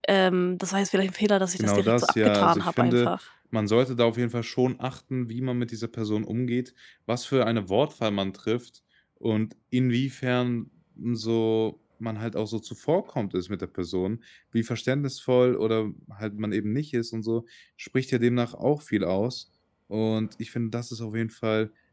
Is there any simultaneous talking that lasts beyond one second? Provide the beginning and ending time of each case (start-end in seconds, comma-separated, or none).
1.6-3.1